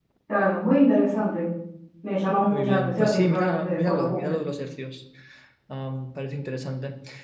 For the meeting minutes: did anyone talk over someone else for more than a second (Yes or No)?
Yes